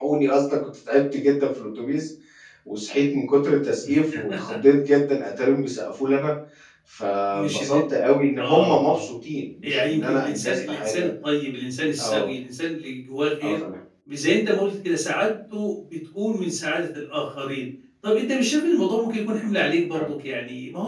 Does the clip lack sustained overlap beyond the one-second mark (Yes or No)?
No